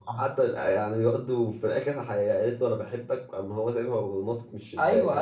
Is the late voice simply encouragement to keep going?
No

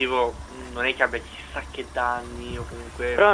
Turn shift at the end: Yes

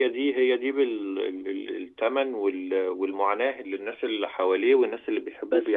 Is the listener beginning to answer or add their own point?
Yes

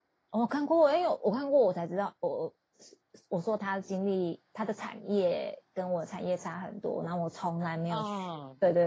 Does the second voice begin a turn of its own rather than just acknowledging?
No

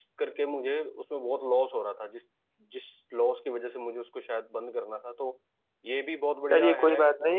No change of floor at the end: No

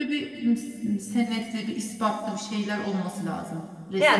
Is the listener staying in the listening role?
No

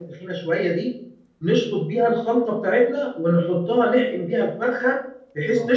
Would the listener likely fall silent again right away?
Yes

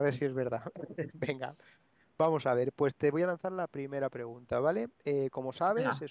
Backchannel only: Yes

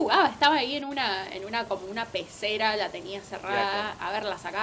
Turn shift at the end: No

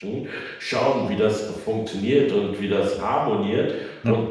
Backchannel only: Yes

